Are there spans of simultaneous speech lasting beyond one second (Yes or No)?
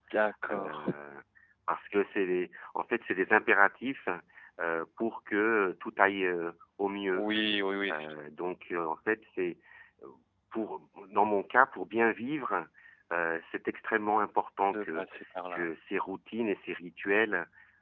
No